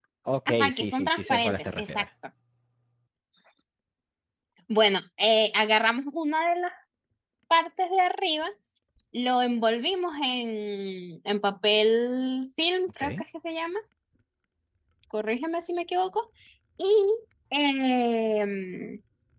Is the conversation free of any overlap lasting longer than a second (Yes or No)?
No